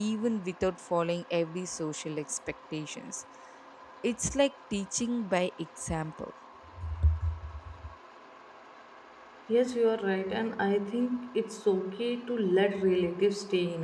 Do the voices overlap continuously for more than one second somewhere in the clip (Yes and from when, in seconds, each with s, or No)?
No